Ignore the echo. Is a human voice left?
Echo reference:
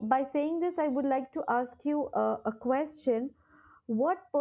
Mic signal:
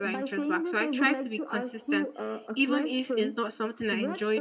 Yes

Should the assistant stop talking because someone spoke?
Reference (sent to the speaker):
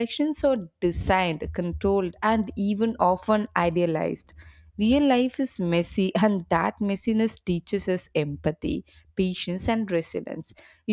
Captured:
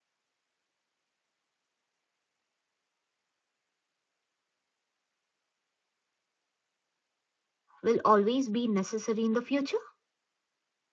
Yes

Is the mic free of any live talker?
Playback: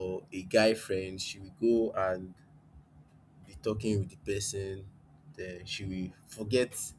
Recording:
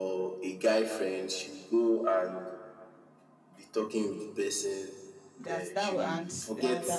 No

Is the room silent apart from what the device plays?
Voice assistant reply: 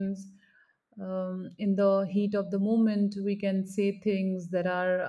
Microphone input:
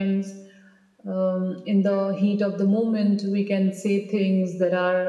Yes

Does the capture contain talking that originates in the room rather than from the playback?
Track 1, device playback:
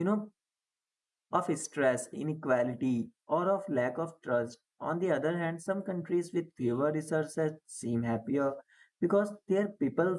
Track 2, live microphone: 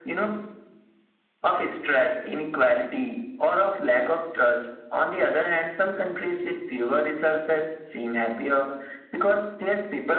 No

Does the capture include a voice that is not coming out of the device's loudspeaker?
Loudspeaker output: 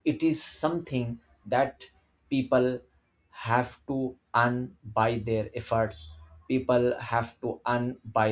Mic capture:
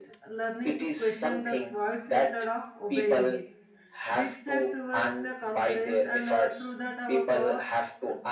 Yes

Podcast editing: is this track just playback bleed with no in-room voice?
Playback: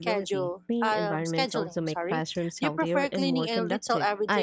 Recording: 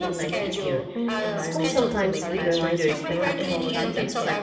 No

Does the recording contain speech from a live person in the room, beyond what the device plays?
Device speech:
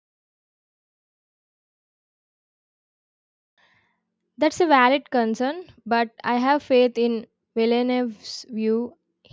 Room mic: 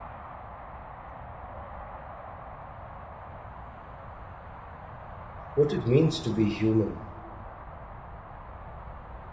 Yes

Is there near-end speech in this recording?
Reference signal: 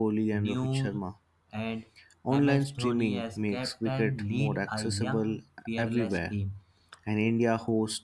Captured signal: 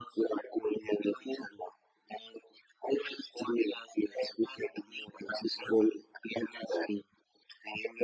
No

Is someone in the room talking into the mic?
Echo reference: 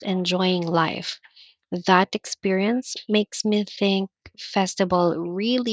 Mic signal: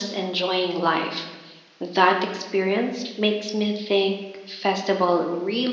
No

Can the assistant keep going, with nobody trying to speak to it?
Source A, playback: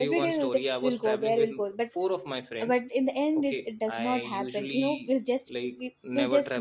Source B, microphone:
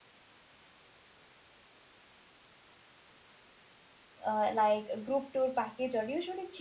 No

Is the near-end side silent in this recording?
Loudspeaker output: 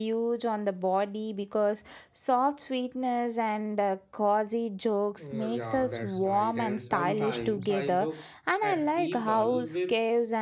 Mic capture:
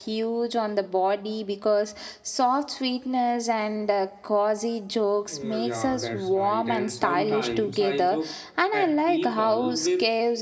Yes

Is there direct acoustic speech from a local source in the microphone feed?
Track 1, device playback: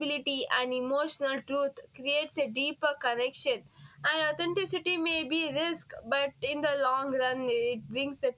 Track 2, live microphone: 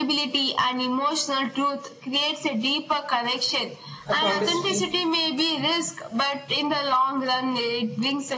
Yes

